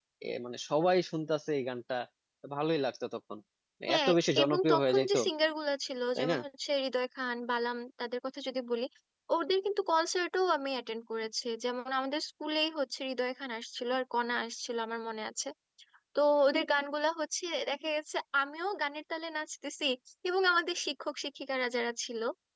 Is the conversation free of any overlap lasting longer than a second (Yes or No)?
No